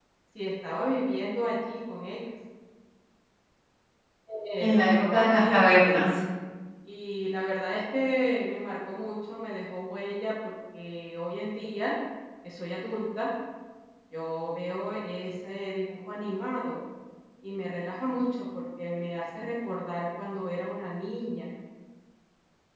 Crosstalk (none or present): present